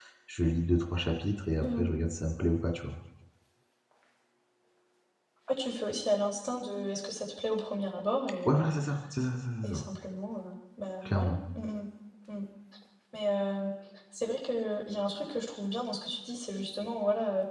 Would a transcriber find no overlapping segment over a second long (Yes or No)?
Yes